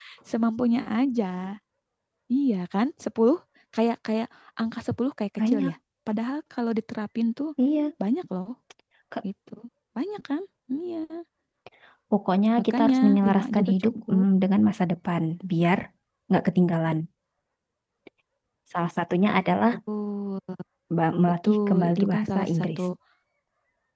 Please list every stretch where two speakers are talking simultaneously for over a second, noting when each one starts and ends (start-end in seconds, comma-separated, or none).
12.7-14.2, 21.4-22.8